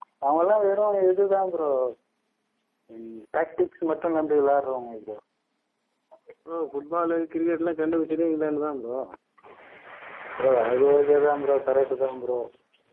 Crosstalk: none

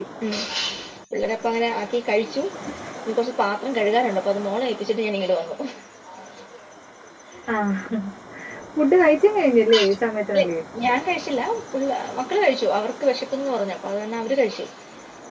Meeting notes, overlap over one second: none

